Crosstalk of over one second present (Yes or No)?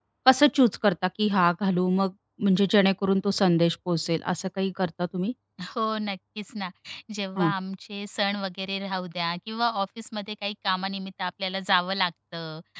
No